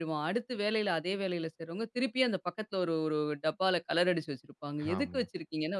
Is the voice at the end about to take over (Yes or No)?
No